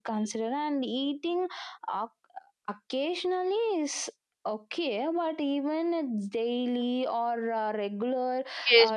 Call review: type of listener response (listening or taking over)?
taking over